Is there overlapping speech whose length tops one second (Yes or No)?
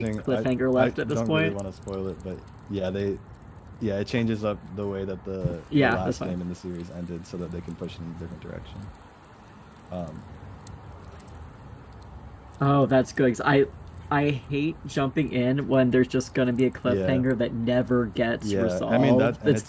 Yes